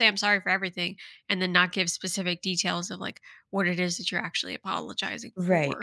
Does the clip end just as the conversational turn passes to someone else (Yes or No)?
Yes